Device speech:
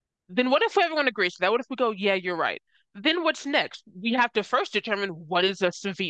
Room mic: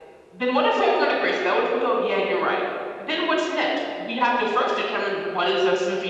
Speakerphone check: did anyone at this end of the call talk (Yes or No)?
No